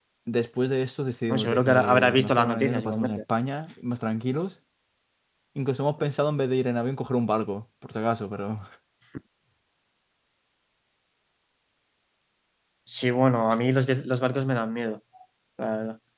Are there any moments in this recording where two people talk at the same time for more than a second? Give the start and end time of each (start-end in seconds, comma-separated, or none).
1.3-3.2